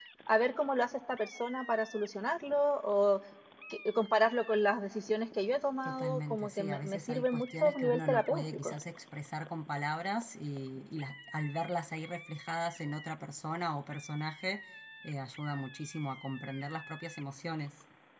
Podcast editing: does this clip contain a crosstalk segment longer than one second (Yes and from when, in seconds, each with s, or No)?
Yes, from 5.8 s